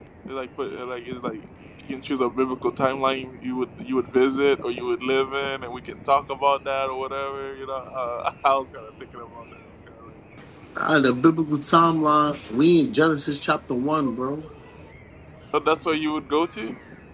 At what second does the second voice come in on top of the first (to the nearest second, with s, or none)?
none